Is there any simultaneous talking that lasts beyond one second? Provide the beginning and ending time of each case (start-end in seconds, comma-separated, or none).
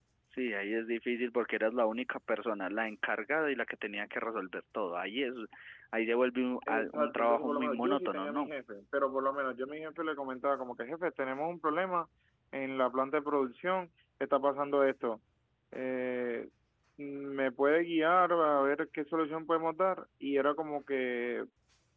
6.7-8.5